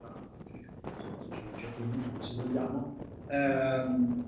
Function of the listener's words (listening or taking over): listening